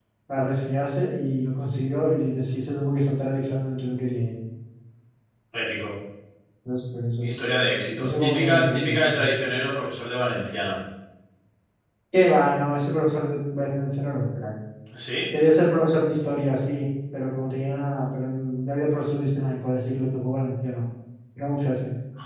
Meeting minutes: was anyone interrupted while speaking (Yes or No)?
Yes